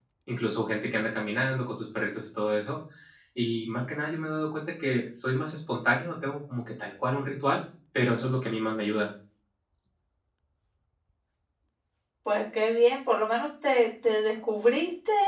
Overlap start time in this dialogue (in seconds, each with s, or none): none